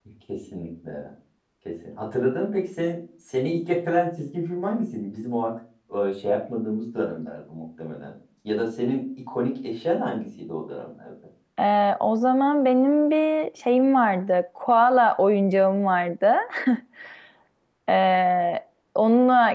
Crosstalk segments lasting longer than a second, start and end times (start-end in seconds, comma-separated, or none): none